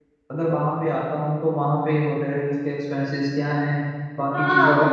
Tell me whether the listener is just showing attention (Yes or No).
No